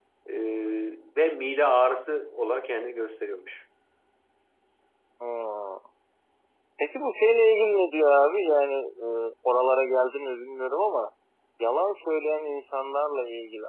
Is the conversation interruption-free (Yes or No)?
Yes